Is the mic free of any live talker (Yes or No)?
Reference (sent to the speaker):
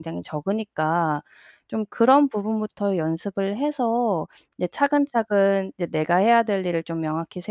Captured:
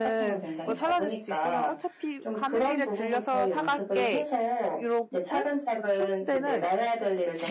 No